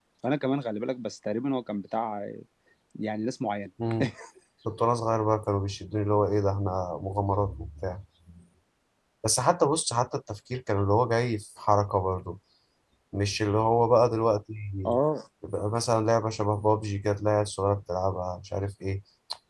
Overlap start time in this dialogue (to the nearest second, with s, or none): none